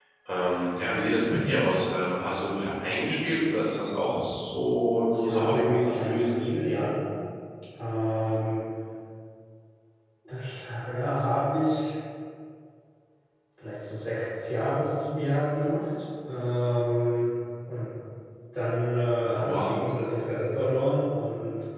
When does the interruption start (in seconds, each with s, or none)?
5.1 s